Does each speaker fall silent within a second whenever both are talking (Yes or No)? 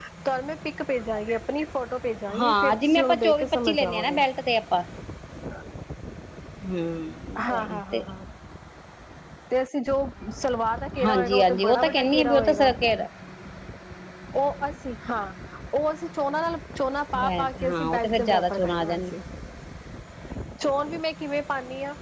No